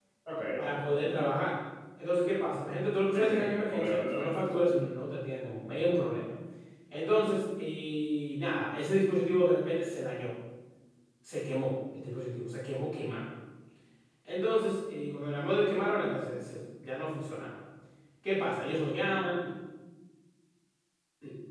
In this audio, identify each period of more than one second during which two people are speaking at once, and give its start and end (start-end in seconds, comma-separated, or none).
3.1-4.5